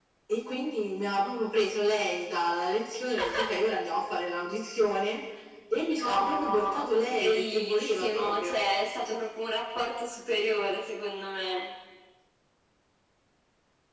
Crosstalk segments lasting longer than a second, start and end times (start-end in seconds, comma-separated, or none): 6.1-8.6